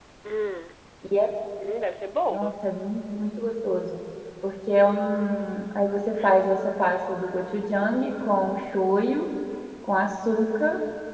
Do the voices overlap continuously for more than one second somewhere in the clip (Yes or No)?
No